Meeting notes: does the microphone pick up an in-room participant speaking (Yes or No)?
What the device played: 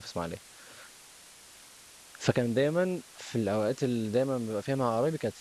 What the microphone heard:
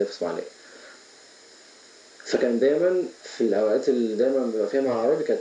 No